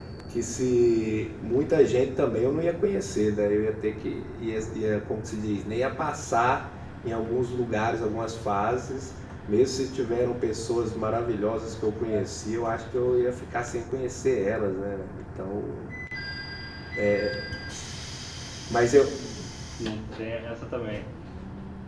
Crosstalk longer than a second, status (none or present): none